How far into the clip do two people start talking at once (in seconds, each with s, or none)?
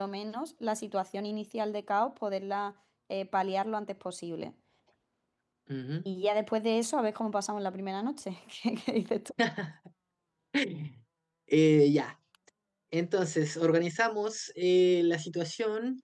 none